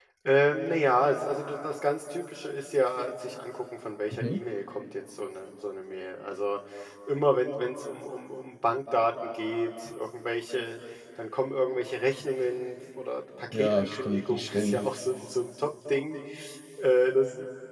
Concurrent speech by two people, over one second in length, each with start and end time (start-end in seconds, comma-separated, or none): 13.5-14.8